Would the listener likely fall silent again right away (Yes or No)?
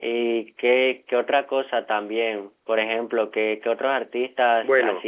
No